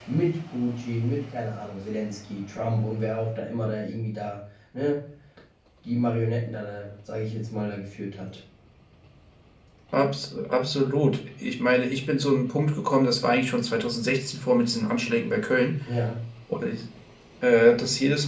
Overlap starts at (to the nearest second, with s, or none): none